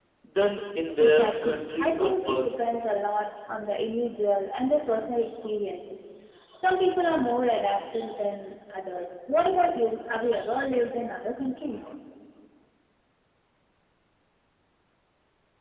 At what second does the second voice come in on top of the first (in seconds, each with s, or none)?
1.0 s